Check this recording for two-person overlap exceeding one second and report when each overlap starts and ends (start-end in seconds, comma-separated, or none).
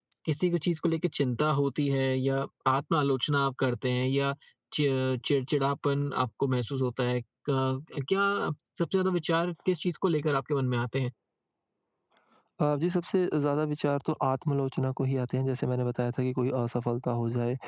none